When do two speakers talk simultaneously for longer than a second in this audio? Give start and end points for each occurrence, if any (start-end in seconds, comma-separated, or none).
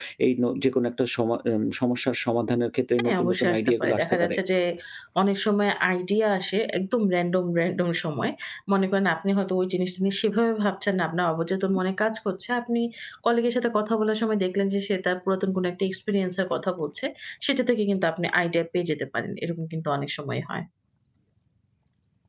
3.0-4.4